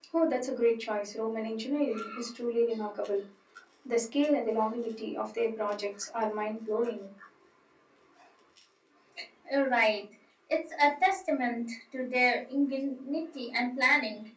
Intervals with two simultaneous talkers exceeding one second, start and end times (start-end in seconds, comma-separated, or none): none